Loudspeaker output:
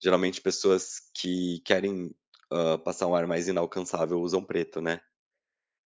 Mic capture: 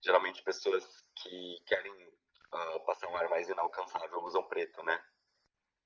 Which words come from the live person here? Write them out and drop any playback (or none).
none